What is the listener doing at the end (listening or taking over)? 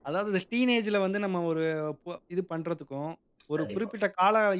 listening